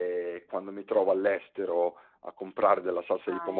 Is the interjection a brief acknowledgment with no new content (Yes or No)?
Yes